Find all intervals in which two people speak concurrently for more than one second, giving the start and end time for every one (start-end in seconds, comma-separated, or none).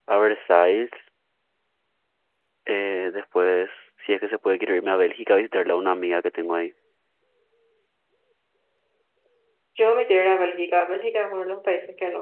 none